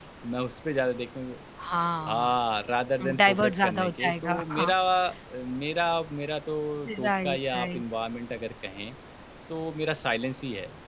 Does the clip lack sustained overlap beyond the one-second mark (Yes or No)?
No